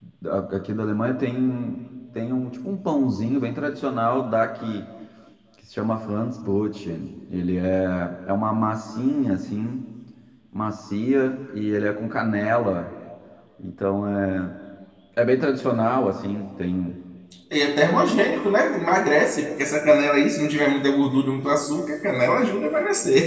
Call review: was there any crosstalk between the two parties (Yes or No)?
No